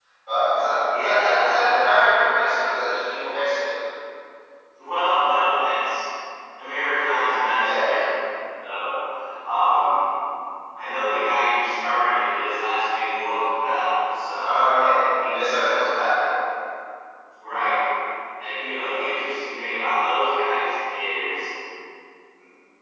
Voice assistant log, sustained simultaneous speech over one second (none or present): present